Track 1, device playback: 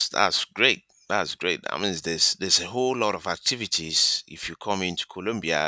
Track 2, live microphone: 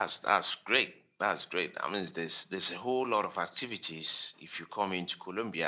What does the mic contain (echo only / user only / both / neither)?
echo only